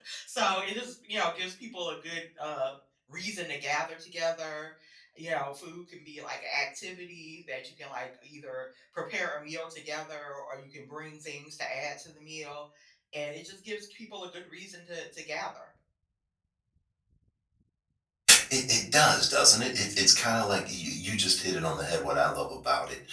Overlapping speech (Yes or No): No